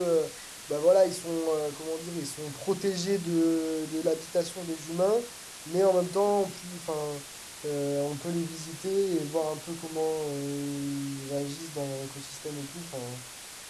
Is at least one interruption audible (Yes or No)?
No